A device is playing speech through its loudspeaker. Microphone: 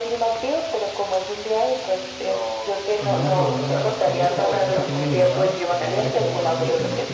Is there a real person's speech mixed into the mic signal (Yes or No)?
Yes